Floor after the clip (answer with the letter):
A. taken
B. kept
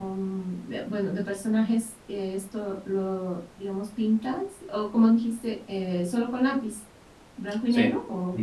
A